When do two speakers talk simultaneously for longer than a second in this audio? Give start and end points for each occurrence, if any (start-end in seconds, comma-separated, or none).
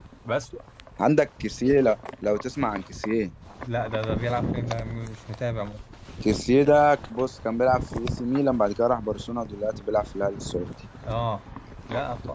none